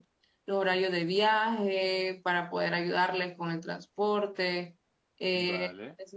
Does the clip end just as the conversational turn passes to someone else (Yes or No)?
No